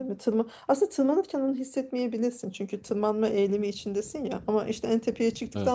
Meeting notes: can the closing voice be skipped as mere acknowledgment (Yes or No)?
Yes